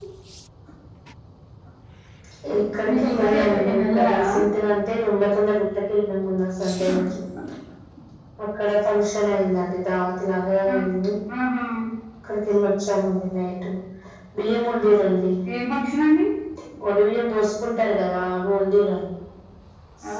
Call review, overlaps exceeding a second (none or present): present